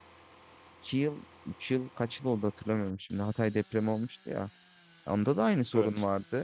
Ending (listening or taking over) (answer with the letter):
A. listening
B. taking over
A